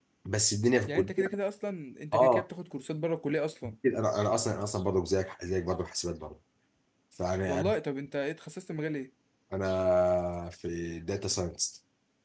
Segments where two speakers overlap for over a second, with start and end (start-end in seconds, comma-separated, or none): none